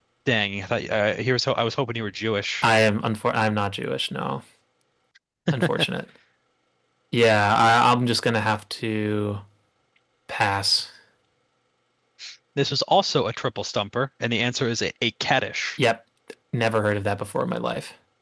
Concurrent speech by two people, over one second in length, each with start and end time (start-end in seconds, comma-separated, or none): none